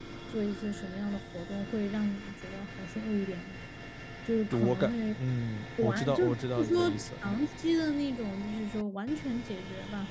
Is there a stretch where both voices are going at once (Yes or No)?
Yes